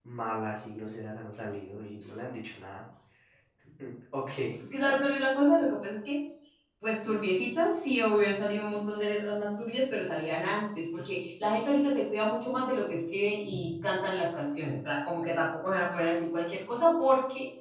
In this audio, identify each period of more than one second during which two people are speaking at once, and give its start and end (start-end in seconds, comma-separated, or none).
none